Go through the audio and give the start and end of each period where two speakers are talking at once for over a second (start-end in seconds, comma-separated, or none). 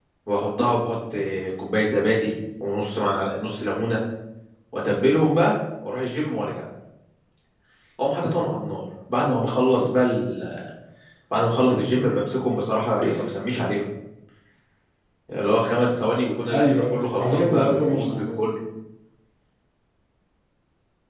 16.5-18.2